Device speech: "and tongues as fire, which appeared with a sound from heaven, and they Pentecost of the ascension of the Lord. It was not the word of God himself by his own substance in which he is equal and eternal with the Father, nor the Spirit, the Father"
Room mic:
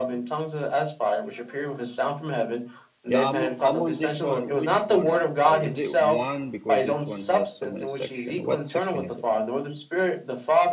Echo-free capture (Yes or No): No